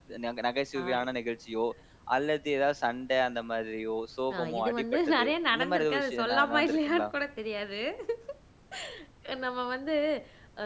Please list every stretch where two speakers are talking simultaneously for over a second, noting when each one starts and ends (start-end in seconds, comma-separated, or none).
4.4-7.1